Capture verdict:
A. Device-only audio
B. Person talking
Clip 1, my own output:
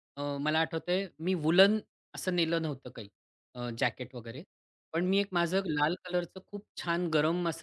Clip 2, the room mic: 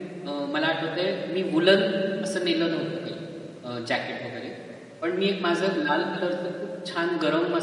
A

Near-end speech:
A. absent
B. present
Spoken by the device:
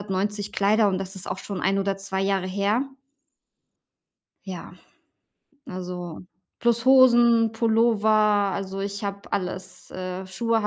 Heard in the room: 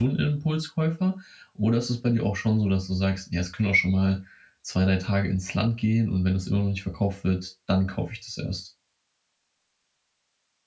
B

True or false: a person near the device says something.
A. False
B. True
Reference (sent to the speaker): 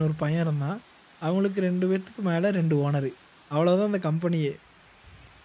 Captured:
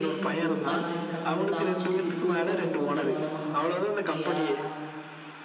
B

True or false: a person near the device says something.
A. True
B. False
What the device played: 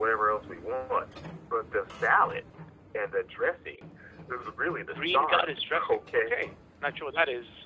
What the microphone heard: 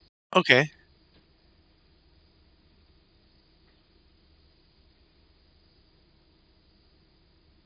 A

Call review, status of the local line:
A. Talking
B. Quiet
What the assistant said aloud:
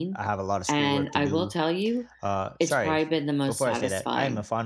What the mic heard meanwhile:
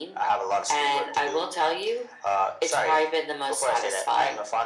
B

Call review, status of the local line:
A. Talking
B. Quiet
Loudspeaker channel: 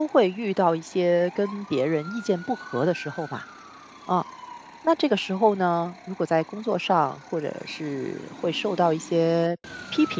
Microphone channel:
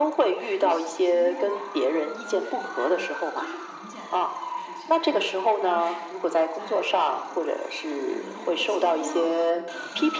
A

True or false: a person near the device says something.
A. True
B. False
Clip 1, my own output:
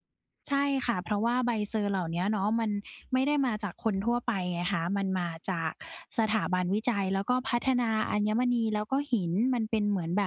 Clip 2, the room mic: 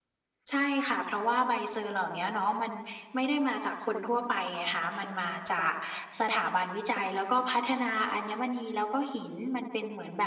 B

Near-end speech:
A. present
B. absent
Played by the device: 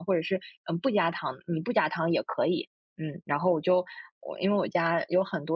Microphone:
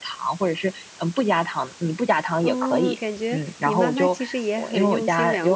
A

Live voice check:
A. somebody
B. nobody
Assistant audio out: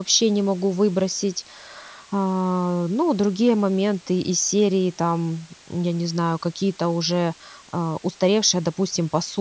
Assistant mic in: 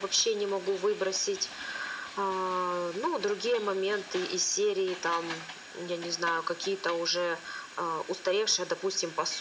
B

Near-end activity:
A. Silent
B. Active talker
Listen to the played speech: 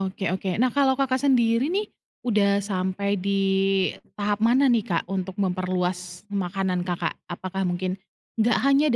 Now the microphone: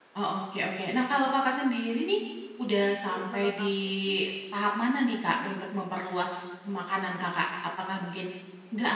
B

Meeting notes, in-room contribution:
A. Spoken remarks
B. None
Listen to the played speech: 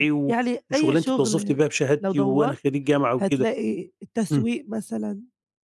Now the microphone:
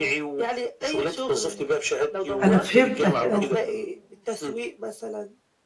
A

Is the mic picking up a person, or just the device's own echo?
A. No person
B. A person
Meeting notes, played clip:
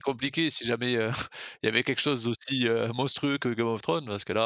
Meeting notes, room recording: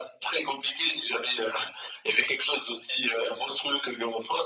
A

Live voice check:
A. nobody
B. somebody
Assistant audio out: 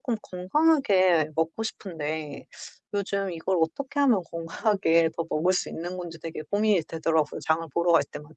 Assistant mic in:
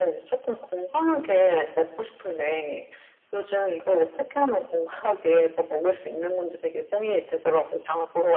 A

